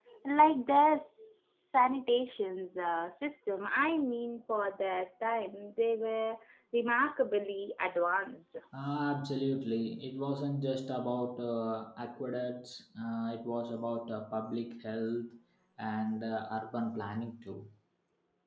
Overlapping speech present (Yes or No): No